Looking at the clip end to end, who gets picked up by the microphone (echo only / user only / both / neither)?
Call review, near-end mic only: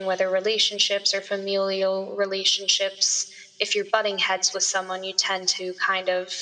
echo only